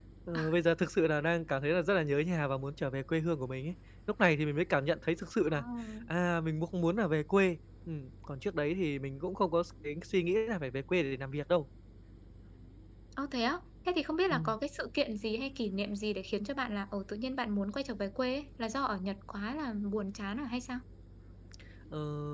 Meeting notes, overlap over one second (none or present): none